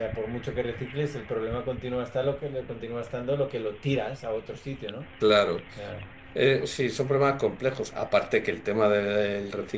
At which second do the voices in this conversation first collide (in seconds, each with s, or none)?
none